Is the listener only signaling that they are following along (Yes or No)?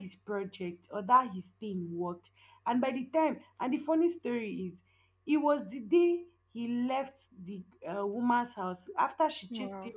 Yes